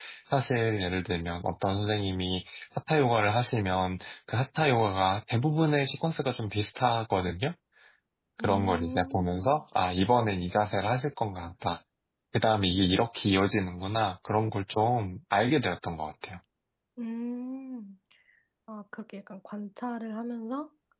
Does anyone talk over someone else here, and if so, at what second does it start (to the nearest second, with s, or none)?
8 s